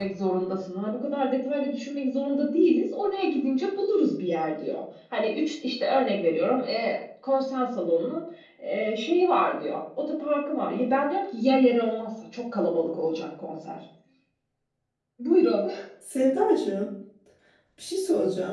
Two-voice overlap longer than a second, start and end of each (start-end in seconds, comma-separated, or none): none